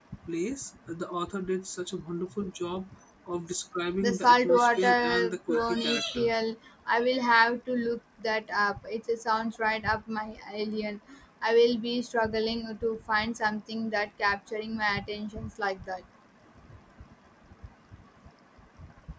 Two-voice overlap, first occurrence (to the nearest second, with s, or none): 4 s